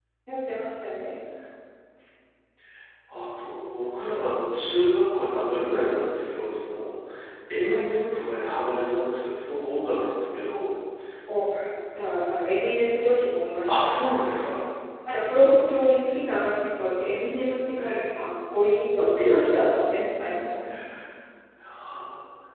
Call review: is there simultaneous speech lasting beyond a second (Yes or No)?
No